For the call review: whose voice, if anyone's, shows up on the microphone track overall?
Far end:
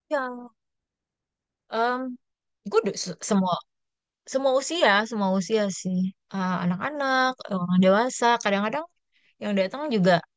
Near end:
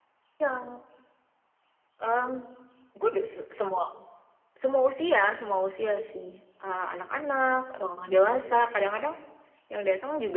echo only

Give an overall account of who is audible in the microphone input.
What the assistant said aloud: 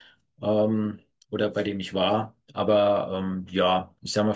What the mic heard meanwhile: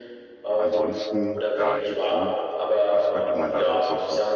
both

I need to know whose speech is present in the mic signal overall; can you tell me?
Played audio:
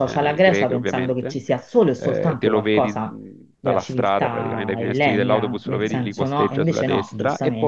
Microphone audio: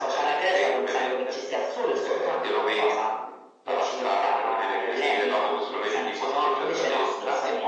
echo only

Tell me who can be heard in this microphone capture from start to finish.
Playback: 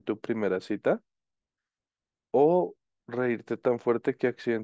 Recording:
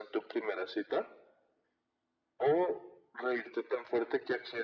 echo only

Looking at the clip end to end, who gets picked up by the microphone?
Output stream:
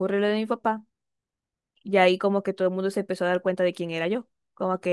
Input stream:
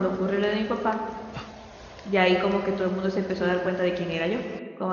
both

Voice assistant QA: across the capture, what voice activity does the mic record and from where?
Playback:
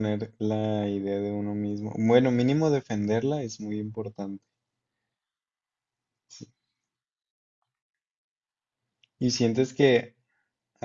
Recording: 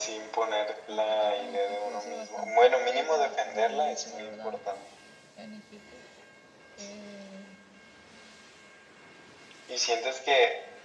both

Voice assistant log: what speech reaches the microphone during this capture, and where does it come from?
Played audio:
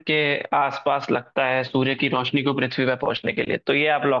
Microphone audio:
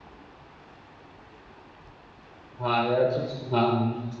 user only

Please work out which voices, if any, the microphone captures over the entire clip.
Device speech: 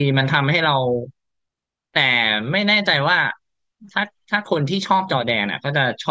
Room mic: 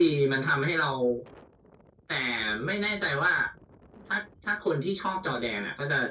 echo only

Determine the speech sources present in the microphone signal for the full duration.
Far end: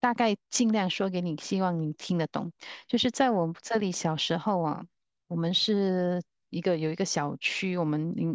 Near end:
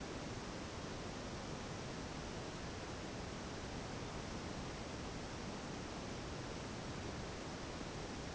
neither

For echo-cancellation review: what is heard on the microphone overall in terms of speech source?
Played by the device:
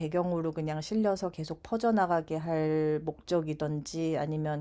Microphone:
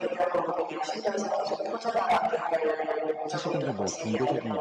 both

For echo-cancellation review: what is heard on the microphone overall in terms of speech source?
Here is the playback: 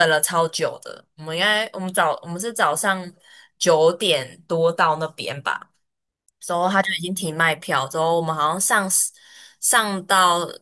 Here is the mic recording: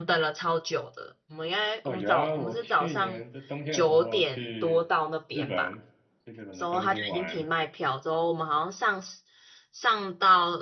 both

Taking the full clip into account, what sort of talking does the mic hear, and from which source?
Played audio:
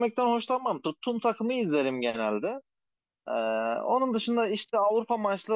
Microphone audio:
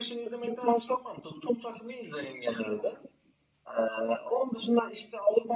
echo only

